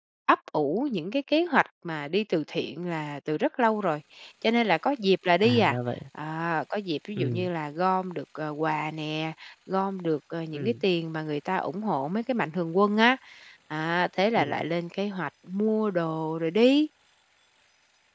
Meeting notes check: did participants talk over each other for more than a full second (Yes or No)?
No